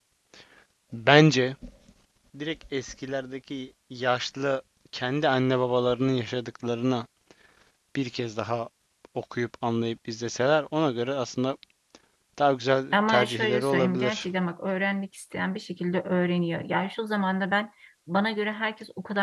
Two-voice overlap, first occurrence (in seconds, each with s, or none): 12.9 s